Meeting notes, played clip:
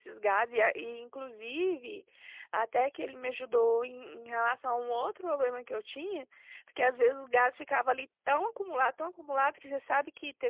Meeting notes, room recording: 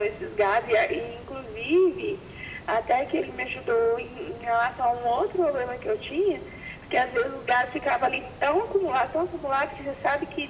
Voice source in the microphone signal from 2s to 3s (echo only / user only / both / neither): echo only